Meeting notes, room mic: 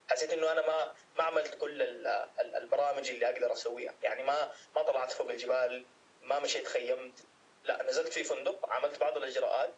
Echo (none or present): present